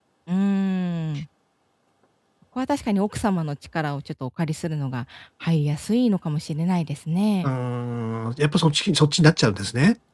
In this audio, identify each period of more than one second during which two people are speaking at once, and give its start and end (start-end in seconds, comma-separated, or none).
none